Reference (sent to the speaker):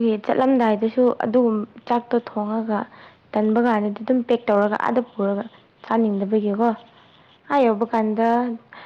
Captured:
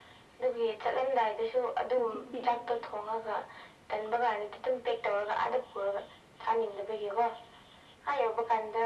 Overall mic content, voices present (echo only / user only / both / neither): both